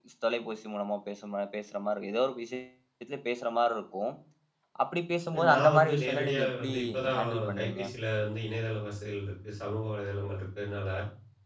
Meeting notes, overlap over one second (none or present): present